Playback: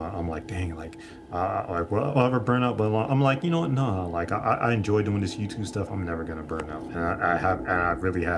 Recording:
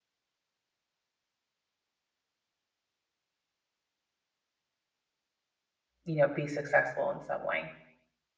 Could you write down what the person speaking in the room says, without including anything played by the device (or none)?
you know, be successful in some way.